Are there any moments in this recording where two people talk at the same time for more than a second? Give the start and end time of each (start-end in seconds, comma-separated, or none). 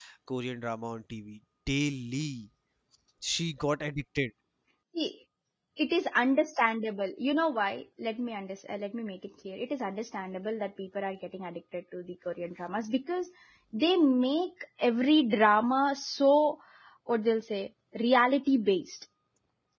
none